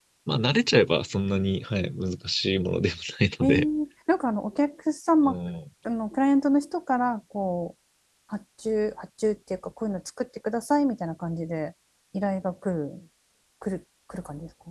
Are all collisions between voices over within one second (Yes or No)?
Yes